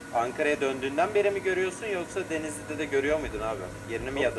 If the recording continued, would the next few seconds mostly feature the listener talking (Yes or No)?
Yes